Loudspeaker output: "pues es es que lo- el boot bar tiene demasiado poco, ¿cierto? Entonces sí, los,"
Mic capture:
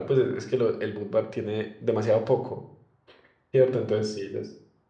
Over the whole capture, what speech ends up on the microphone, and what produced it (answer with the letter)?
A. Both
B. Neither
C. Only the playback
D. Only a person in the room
C